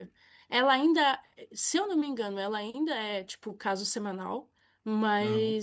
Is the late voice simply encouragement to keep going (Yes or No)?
Yes